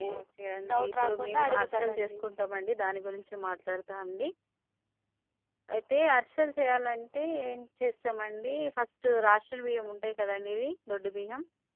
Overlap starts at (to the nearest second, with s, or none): 1 s